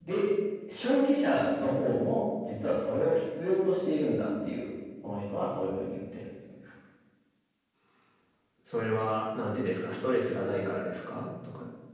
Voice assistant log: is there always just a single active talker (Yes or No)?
Yes